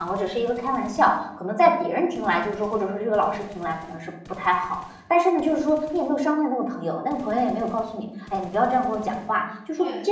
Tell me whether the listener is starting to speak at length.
No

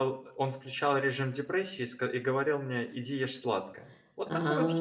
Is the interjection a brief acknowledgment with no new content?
Yes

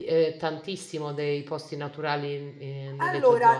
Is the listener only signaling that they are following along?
No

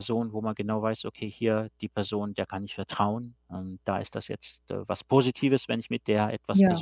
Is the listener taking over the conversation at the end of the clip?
No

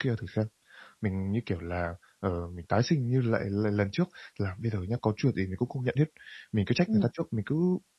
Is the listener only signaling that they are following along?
Yes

